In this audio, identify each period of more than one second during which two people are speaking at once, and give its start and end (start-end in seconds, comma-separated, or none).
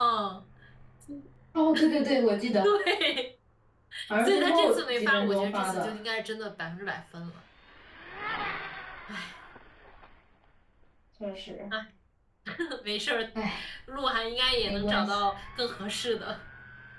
4.2-5.9